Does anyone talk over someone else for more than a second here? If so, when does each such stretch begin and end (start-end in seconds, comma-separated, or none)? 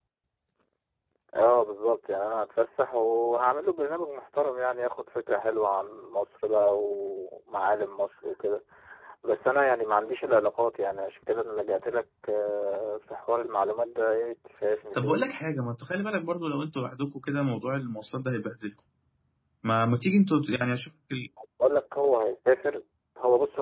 none